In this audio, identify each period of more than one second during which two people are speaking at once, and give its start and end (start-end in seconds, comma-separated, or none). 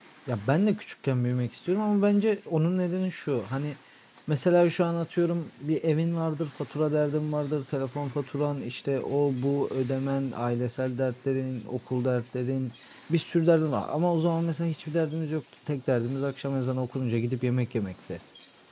none